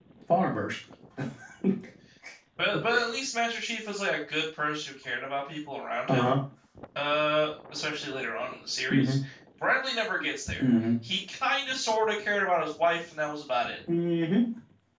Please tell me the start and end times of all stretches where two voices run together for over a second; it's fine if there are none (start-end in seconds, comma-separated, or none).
none